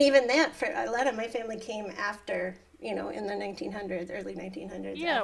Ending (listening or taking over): taking over